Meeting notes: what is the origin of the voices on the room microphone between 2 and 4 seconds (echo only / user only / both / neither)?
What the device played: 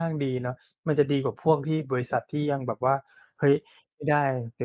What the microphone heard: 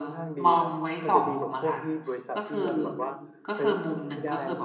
both